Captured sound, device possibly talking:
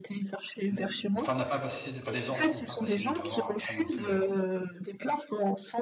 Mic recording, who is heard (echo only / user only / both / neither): both